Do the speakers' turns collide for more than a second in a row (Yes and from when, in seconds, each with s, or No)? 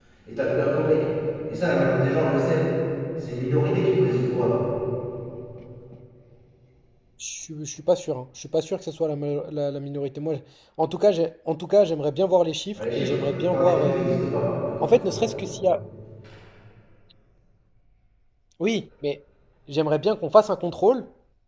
Yes, from 12.8 s